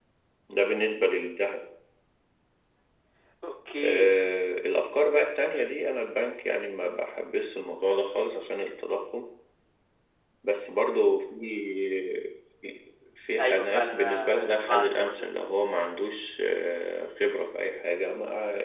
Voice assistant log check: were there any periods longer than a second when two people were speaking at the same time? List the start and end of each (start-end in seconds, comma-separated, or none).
13.4-15.3